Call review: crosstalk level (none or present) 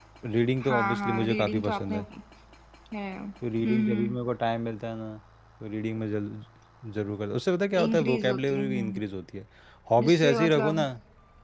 present